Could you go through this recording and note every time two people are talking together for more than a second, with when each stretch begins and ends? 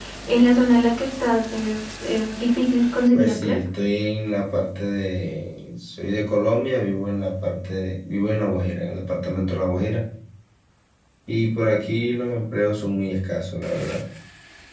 none

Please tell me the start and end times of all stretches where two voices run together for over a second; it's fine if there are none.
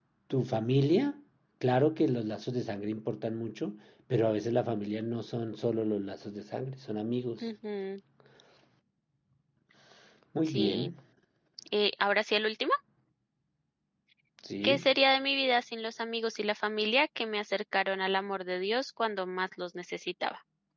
none

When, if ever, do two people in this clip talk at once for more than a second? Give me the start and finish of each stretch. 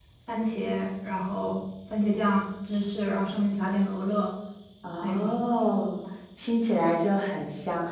none

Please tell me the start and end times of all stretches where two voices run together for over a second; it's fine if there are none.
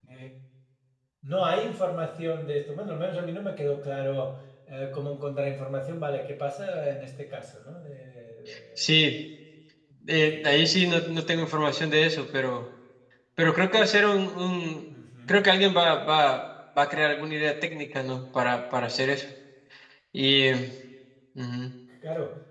10.2-11.8

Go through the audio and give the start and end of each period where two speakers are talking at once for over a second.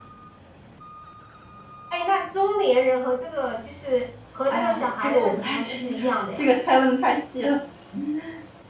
4.5-6.5

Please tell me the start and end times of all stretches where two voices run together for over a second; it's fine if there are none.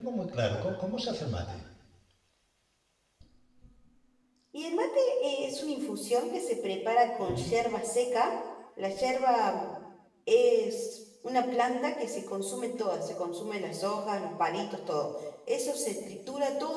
none

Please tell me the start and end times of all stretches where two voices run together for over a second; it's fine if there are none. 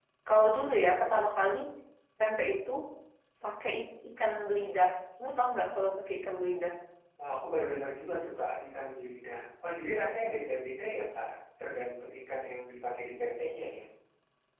none

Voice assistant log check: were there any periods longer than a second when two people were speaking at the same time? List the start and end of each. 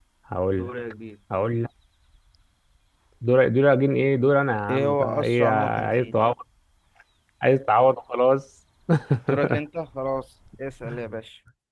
4.7-6.2

